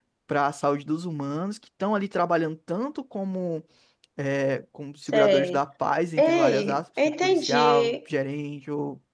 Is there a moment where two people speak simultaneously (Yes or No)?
Yes